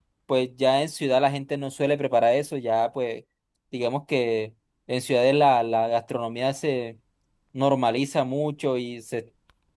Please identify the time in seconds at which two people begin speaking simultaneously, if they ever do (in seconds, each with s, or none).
none